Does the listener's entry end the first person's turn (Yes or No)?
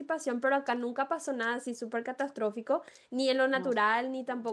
No